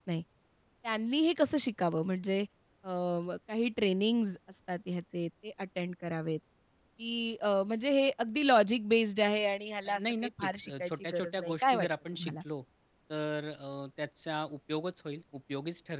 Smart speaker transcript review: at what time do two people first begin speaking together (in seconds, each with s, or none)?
9.8 s